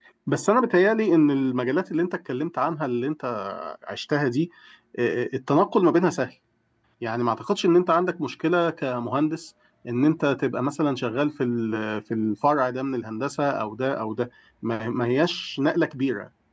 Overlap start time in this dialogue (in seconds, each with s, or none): none